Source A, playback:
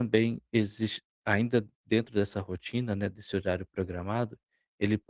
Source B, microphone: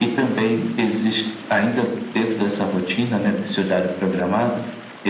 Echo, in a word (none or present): present